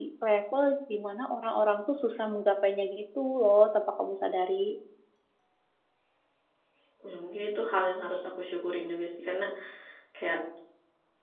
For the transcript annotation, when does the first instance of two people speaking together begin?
none

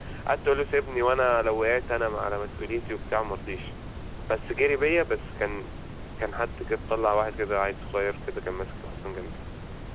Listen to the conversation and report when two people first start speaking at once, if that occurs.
none

